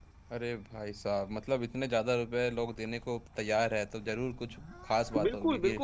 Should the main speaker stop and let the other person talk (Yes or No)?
Yes